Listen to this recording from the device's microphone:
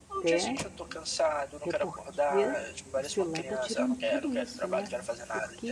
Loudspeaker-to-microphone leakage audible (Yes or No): Yes